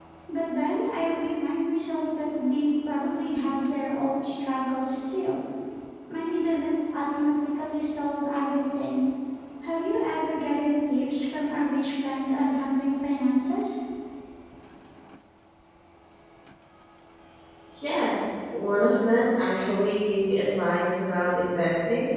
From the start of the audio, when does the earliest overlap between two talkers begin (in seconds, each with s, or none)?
none